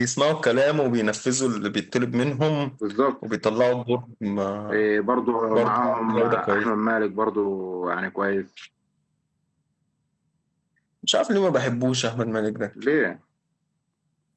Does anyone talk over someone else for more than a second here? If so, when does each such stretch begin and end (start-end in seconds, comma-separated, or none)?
5.5-6.7